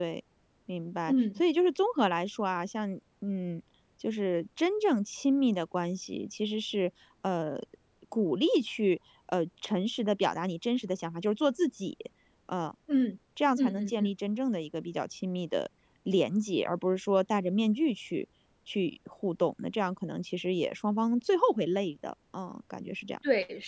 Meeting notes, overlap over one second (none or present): none